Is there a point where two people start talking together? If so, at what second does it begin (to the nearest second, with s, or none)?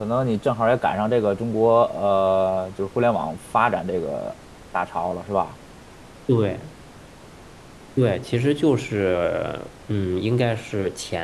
none